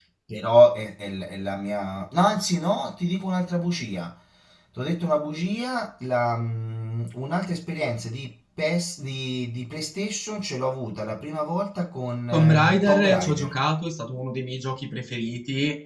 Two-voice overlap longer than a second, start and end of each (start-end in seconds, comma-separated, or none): 12.3-13.5